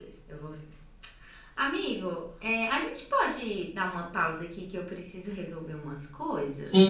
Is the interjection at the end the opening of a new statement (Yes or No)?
Yes